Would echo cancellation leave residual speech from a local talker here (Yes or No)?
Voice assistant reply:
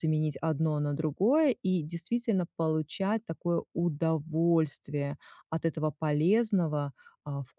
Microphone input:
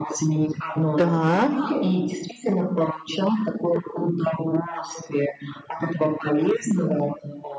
Yes